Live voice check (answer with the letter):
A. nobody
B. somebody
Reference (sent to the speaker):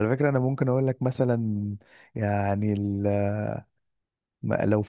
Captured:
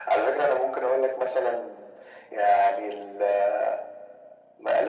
A